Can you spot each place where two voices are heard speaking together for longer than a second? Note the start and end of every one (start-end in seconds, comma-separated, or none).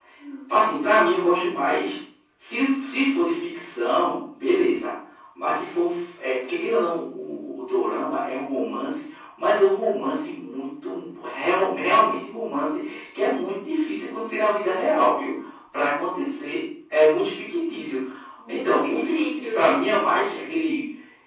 18.5-19.8